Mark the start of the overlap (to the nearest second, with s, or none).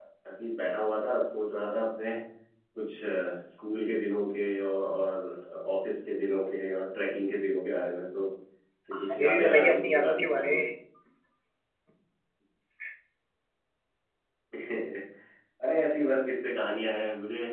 9 s